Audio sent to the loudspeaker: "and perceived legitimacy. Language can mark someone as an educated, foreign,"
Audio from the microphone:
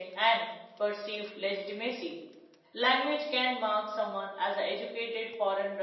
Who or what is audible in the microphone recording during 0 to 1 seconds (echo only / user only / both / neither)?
echo only